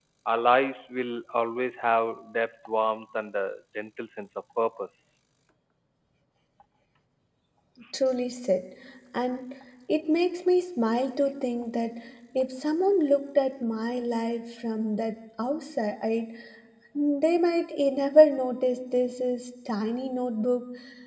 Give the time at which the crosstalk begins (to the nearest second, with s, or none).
none